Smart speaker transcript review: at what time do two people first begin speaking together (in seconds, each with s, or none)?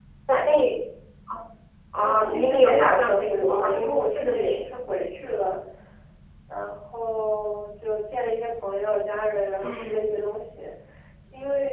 1.9 s